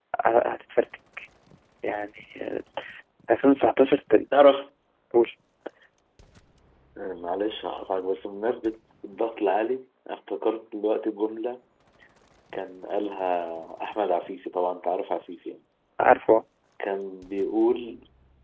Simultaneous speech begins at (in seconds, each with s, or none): none